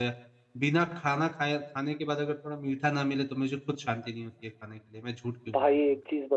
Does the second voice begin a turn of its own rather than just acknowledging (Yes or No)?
Yes